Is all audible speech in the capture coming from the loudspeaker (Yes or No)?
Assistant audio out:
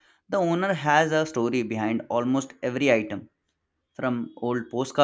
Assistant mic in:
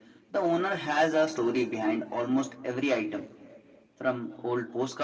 Yes